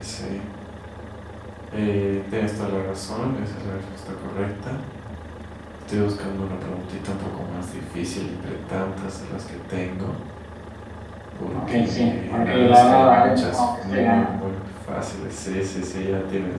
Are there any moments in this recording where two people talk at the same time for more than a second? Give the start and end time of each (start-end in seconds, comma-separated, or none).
11.5-14.3